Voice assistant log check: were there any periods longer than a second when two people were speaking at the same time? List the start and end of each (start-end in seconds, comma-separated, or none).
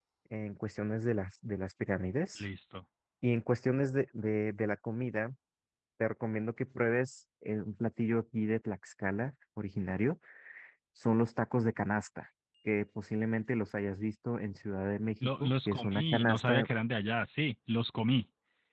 15.2-16.7